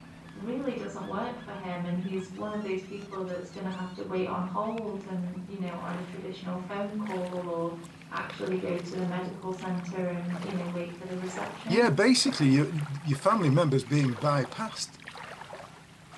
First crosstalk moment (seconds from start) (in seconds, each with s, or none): none